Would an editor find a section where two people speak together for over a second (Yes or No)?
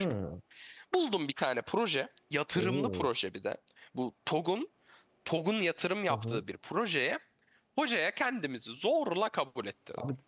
No